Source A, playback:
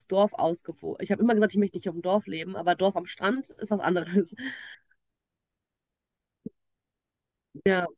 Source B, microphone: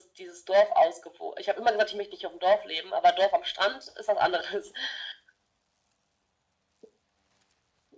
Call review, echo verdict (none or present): present